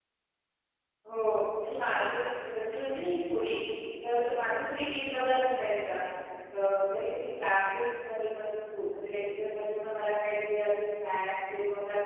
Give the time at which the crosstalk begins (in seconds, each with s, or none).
none